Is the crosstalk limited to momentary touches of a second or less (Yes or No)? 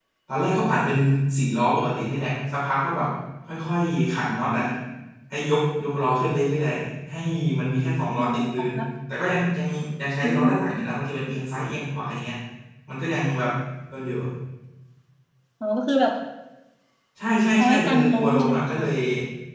No